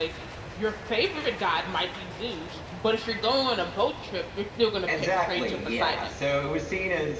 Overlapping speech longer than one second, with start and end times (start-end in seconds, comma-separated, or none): 4.9-6.1